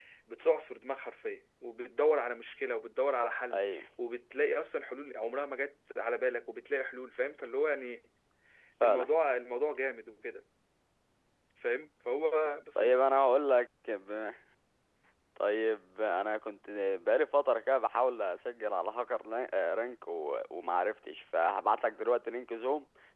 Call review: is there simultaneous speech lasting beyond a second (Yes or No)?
No